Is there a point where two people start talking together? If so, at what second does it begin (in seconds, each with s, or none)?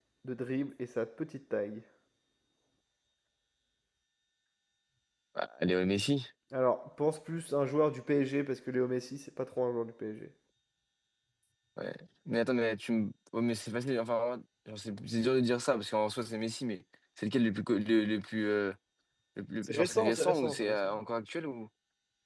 19.6 s